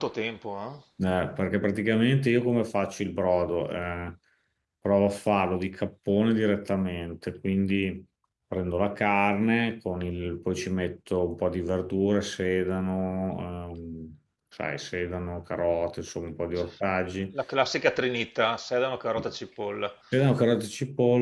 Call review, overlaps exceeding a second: none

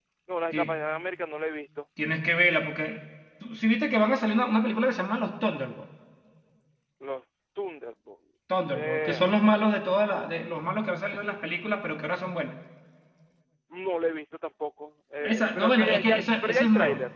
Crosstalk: present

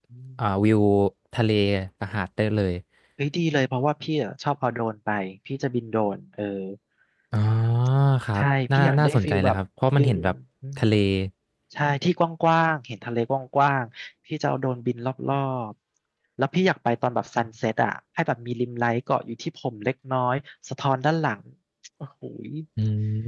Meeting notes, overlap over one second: present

